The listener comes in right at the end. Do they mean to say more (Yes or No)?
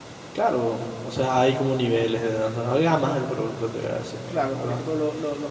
Yes